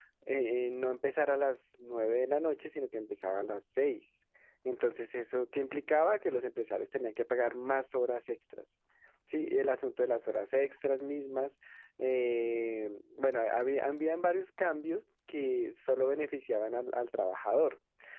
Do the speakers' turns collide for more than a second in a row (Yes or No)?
No